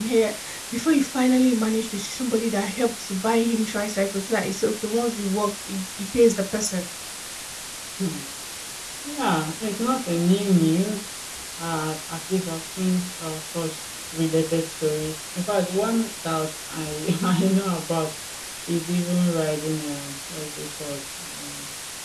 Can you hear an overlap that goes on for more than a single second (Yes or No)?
No